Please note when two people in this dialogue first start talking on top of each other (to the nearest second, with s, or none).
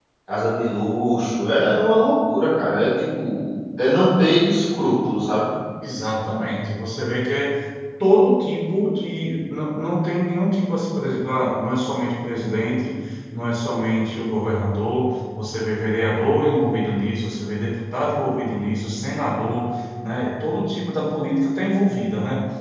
none